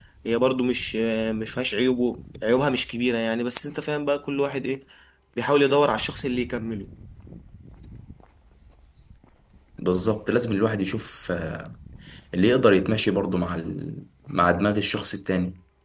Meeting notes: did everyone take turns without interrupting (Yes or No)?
Yes